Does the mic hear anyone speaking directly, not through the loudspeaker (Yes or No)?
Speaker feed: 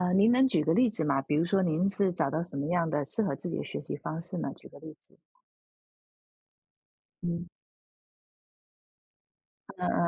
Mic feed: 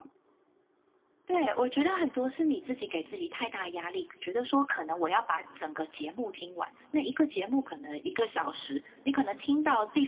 Yes